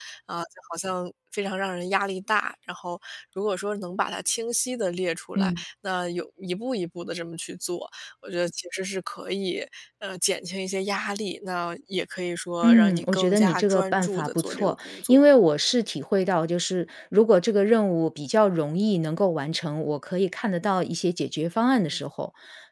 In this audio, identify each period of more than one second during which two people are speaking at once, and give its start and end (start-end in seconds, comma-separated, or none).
12.6-15.2